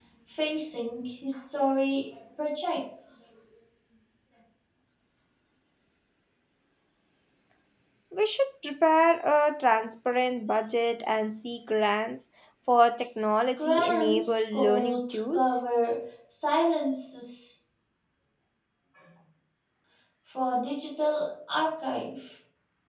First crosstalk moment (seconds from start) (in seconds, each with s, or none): 13.6 s